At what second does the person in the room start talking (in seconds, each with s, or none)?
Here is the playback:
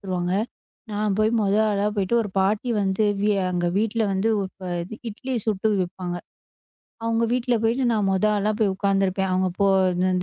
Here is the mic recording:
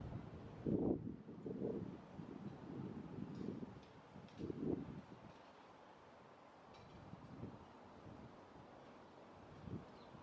none